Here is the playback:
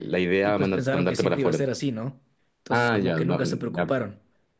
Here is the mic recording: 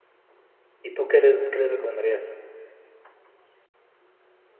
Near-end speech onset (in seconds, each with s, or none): 0.8 s